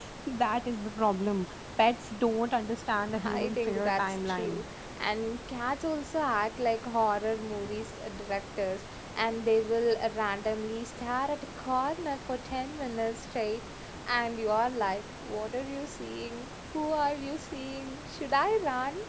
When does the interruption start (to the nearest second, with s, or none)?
3 s